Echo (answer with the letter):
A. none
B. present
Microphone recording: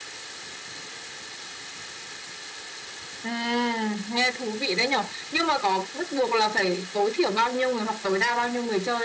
B